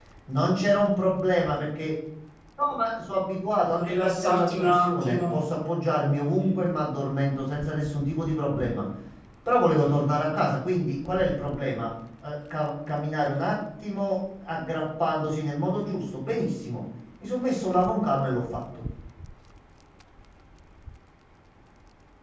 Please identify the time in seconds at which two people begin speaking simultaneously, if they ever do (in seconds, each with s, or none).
3.8 s